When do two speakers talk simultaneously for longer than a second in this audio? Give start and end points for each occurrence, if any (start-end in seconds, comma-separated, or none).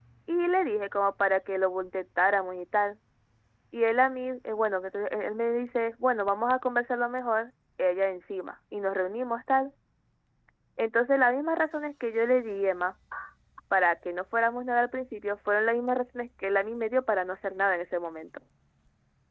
none